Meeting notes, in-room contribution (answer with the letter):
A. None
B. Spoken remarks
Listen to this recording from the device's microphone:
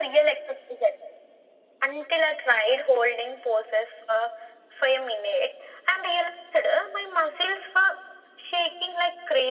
A